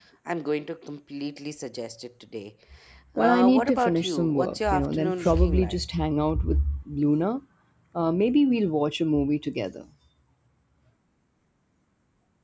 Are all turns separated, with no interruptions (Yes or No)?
No